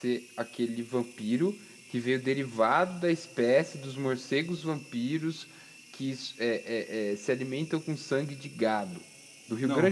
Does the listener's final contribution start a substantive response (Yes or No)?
Yes